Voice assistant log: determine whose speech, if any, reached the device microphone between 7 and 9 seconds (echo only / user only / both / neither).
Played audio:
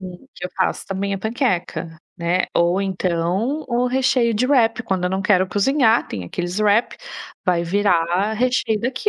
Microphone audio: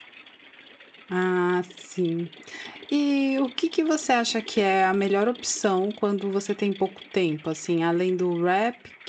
user only